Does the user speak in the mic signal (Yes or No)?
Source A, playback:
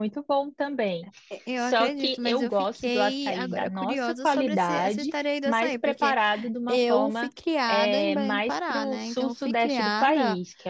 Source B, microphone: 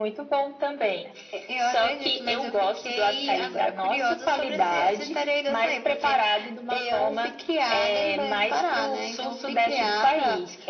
No